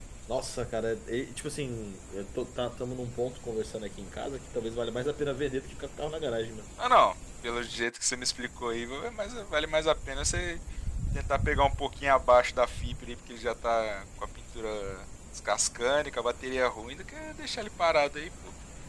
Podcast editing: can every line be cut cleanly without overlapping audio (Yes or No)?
Yes